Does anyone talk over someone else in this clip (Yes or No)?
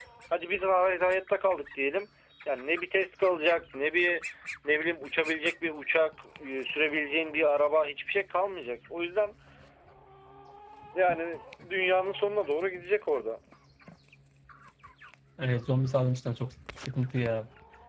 No